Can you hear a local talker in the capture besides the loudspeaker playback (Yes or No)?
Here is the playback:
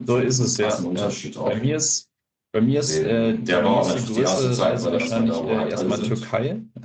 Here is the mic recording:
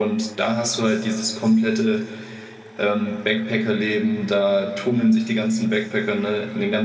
Yes